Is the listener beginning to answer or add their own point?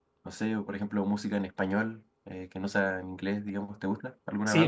Yes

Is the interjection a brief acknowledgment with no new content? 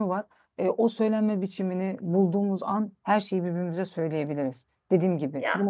Yes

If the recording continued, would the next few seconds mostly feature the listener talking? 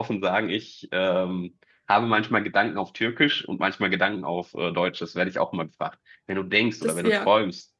No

